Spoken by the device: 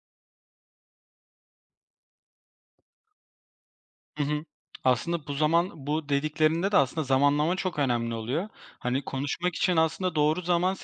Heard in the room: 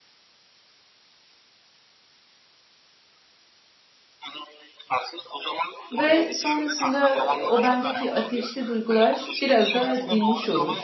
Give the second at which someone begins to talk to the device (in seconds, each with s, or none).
5.9 s